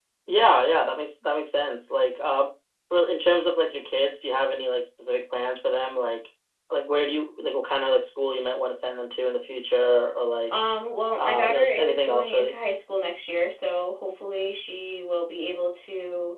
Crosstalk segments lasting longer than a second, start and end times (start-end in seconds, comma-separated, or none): 11.2-12.5